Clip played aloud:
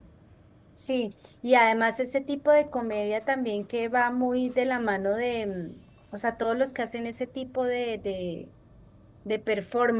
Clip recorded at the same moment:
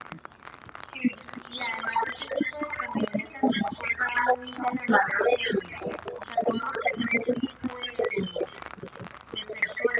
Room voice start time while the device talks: none

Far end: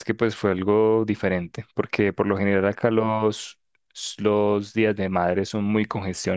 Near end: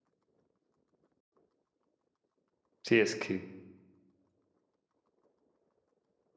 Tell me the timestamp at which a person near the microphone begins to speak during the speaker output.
2.8 s

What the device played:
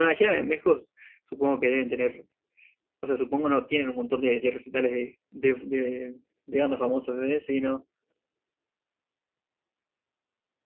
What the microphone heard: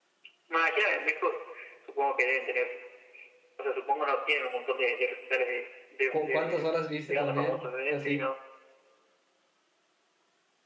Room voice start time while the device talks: 6.1 s

